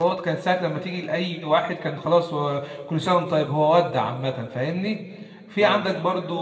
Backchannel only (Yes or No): Yes